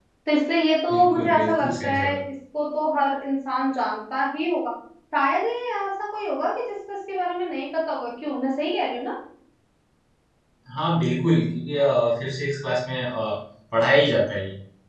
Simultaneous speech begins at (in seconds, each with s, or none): 0.9 s